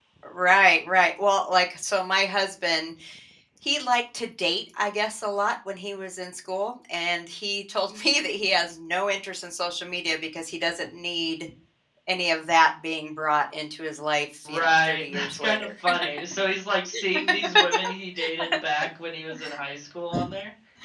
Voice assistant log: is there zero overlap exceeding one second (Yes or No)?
No